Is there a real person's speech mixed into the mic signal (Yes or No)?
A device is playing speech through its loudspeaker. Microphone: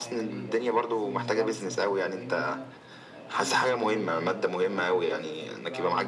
Yes